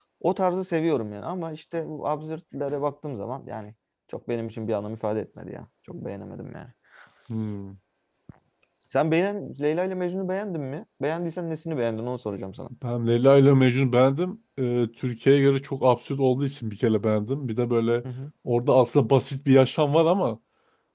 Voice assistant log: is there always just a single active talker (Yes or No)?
Yes